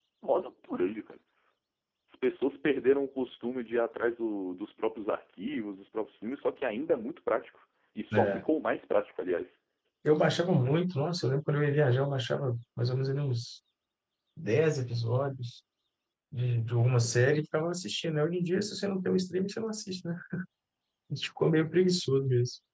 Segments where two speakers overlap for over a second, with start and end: none

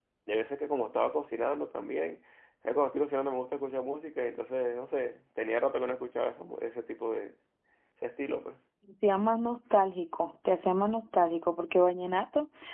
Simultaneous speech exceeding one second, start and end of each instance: none

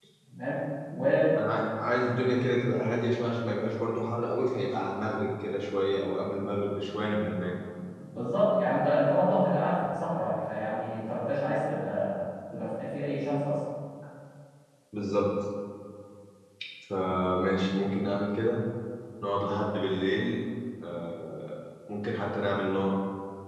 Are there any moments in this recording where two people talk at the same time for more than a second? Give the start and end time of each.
none

